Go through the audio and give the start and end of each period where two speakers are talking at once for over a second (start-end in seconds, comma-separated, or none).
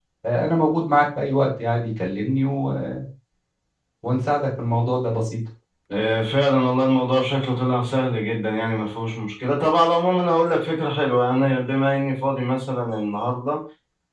none